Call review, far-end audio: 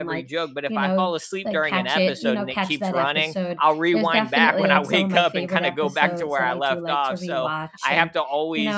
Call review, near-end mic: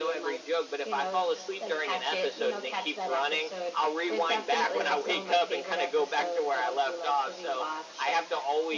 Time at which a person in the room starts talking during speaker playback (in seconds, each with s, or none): none